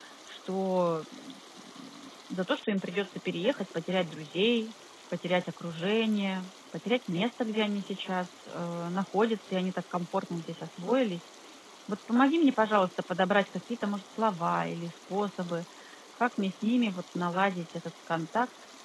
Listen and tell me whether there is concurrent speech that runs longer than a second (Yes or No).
No